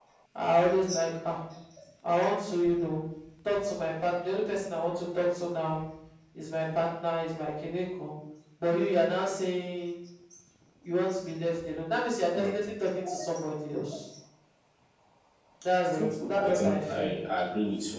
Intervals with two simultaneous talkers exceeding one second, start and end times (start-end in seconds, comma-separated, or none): 15.9-17.2